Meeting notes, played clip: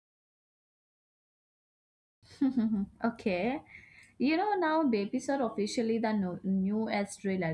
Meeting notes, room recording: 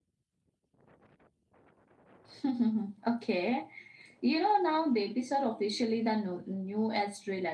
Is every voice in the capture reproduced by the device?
Yes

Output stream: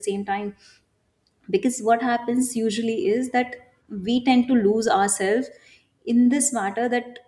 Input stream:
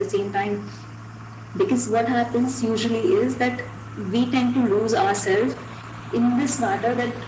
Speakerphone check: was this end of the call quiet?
Yes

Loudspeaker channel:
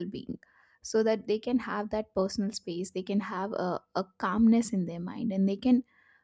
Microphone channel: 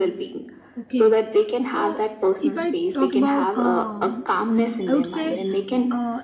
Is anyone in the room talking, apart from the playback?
Yes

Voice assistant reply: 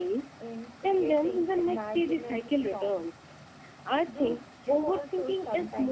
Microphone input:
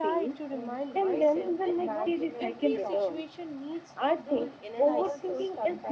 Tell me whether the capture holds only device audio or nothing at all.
No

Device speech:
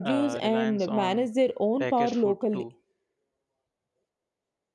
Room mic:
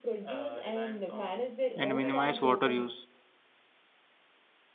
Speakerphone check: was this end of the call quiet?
No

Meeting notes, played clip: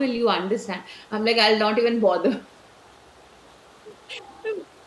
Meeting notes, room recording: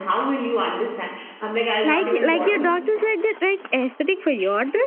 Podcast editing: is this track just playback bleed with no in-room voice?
No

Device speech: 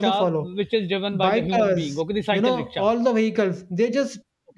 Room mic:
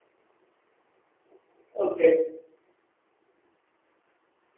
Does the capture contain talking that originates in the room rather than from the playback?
Yes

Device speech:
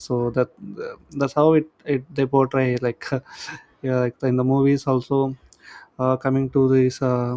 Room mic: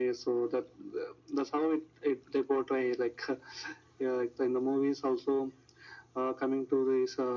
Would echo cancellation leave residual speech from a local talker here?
No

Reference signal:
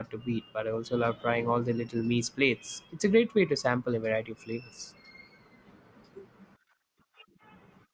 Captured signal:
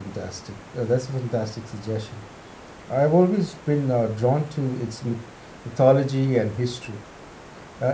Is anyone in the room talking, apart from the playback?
Yes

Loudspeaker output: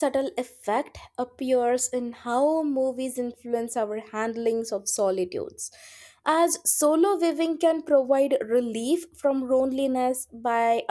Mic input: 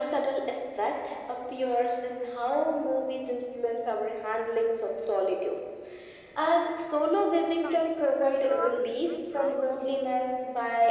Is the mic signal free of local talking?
No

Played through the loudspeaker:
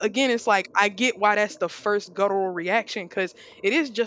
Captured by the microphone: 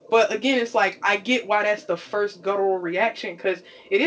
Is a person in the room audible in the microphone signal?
No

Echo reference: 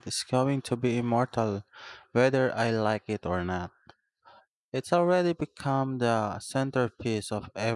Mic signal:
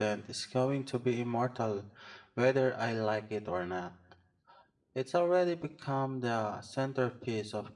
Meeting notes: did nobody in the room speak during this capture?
Yes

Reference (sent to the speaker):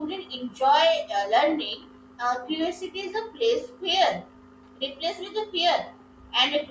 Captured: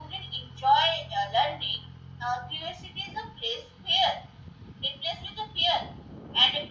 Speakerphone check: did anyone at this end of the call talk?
No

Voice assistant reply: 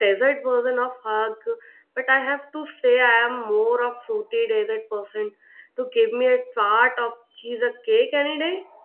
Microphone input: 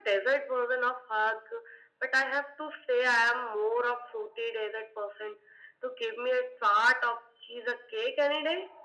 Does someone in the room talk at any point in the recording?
No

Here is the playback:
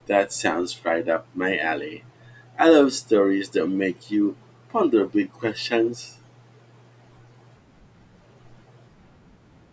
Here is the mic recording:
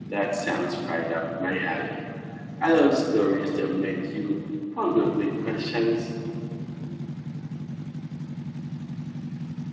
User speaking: No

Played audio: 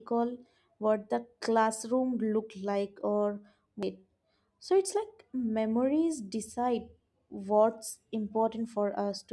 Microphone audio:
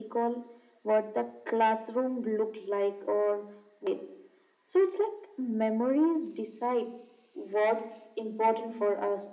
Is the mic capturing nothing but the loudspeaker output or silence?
Yes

